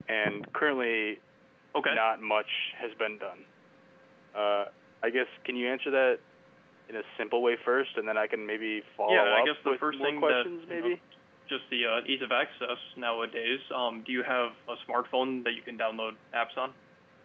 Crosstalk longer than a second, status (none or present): present